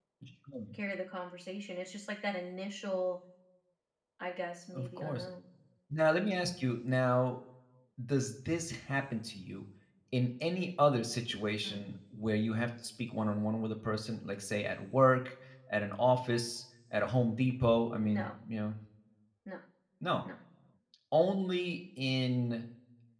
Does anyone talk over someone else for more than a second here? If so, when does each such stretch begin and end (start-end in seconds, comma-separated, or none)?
none